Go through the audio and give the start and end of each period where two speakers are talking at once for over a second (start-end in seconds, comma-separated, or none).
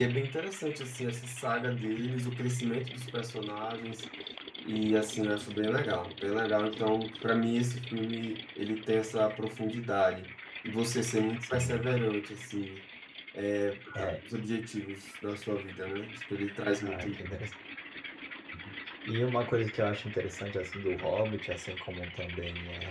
none